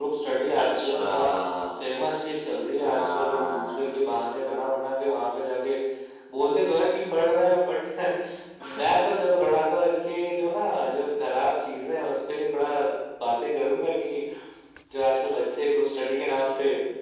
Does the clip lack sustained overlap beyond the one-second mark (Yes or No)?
No